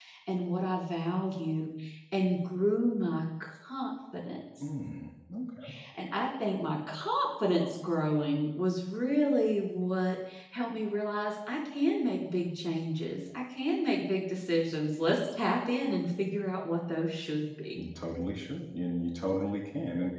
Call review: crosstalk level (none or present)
none